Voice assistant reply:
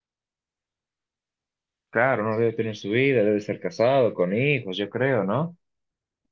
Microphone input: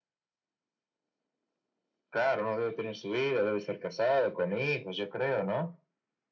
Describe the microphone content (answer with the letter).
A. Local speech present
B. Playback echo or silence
B